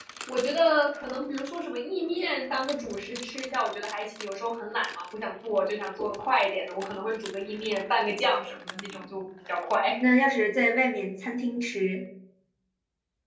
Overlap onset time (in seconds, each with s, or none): none